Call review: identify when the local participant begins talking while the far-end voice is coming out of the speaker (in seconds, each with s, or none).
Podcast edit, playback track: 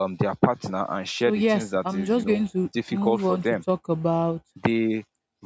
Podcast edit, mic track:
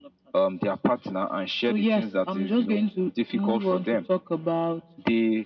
none